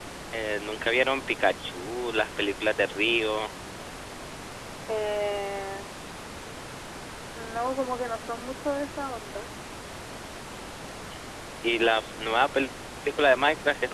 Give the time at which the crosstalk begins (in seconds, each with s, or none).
none